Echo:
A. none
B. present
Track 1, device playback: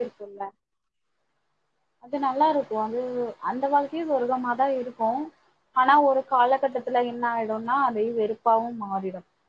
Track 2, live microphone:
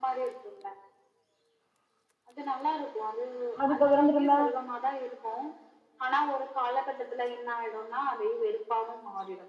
B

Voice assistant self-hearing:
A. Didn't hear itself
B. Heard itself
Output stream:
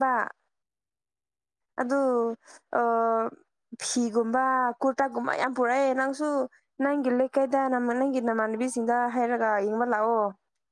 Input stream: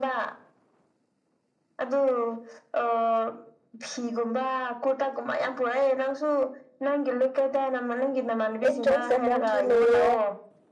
B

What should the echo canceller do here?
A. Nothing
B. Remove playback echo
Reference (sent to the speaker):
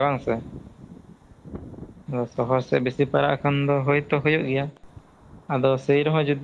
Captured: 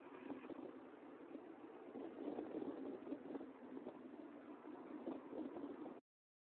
A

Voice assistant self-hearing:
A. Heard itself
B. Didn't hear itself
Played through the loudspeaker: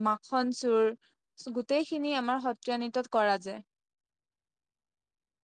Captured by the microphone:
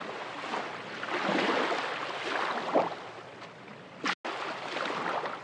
B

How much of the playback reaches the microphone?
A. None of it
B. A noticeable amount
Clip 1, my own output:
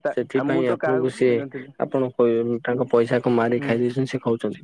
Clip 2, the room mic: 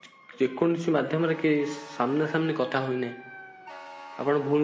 A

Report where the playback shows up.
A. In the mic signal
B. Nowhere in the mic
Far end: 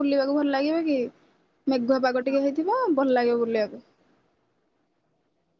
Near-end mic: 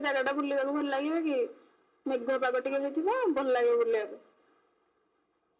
A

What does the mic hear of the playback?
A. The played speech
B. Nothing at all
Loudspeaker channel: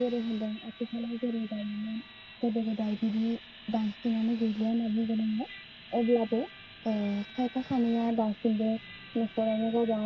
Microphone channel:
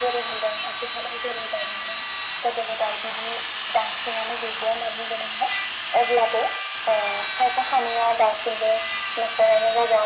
A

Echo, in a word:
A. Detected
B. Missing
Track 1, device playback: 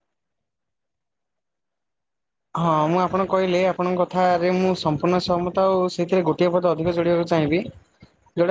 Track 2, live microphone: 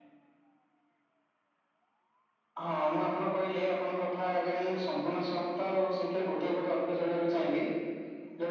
A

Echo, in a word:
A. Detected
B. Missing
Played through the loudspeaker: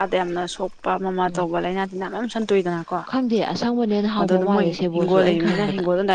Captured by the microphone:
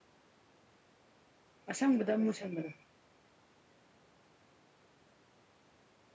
B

